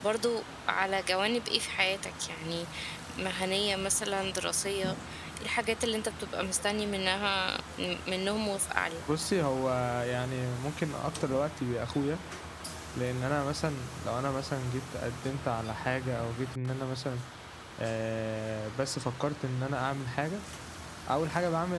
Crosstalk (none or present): none